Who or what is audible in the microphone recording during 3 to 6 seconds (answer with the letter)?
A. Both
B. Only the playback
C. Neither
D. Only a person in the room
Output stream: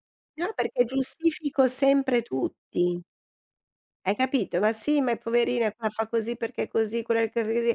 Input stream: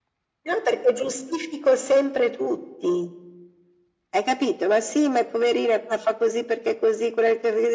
B